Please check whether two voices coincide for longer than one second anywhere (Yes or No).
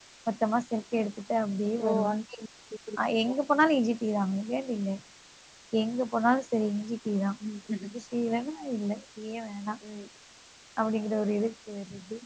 No